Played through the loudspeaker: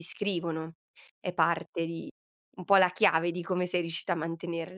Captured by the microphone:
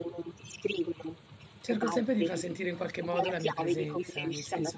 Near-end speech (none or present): present